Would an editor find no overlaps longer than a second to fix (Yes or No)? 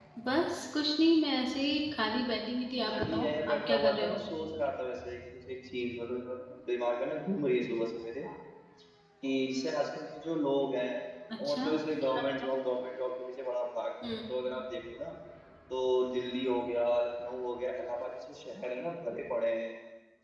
No